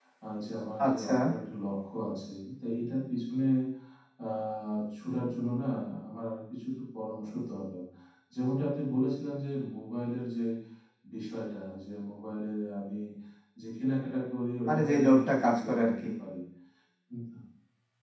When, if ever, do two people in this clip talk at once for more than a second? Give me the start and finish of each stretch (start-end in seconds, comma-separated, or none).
14.7-15.9